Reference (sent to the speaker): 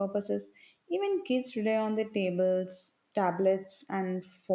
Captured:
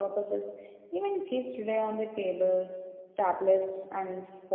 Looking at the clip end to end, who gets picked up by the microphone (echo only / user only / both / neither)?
echo only